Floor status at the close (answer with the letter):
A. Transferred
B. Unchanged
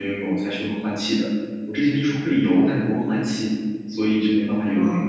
A